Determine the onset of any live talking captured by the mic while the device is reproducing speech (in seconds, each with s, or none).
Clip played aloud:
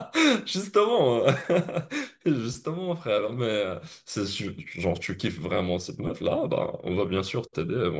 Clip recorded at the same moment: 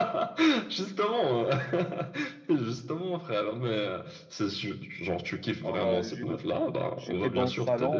5.6 s